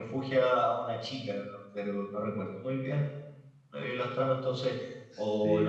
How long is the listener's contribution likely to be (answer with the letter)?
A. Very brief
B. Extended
A